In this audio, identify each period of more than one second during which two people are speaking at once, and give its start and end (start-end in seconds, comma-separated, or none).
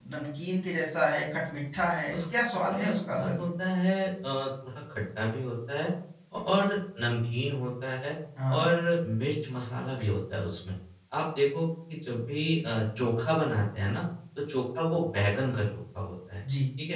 2.1-3.5